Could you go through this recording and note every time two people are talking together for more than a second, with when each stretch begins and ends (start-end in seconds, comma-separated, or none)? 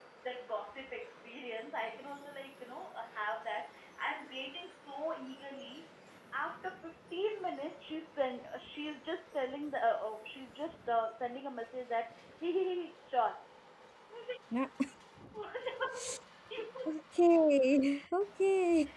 none